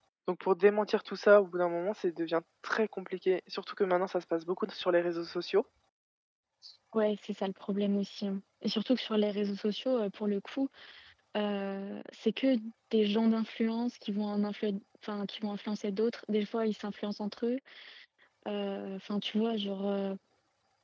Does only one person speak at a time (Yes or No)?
Yes